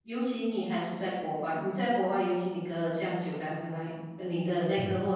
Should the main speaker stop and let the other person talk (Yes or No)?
No